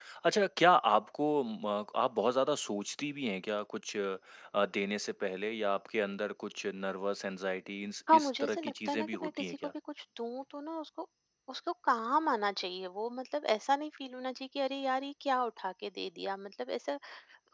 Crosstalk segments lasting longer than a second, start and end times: 8.1-9.7

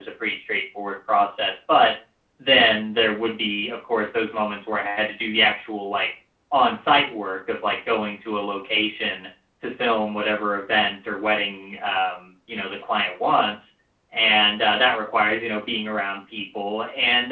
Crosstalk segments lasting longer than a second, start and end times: none

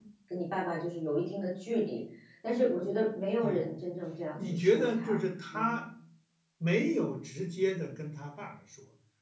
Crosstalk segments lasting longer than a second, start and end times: 4.5-5.8

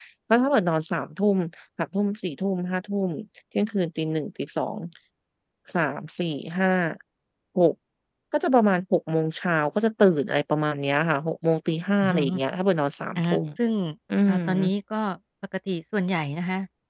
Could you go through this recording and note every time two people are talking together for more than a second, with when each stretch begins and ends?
none

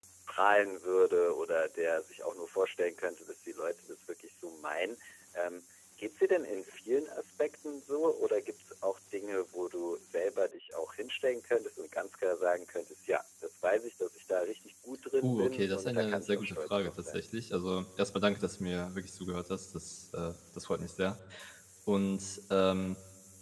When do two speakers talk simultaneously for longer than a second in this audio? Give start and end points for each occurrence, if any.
15.2-17.2

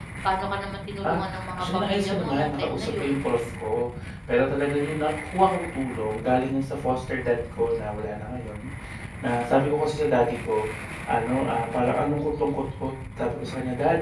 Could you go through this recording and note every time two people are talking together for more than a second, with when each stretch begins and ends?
1.1-3.1

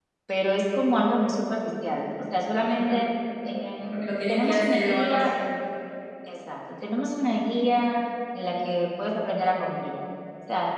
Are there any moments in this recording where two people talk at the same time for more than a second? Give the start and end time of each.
3.8-5.3

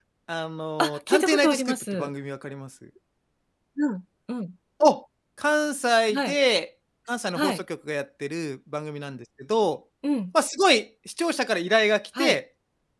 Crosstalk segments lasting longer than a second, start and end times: 0.8-2.1

